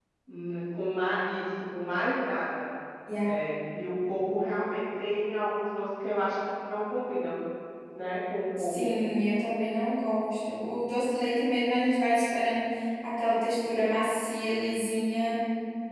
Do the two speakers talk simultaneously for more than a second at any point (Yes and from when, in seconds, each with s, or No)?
No